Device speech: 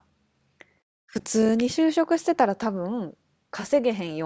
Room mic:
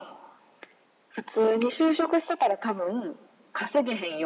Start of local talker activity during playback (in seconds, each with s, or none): none